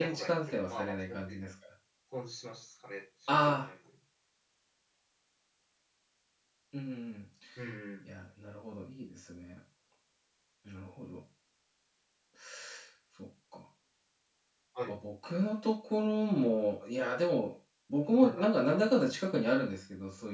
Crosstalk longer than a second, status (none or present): present